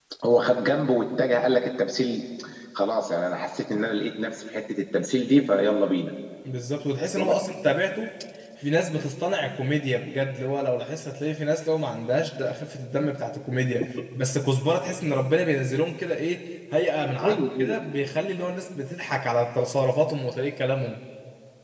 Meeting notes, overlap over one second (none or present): none